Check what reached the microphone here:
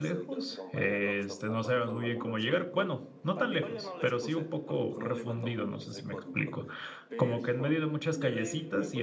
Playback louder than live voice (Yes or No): No